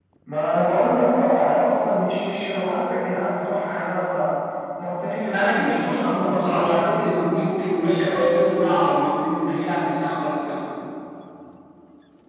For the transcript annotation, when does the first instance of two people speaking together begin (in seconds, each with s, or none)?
5.3 s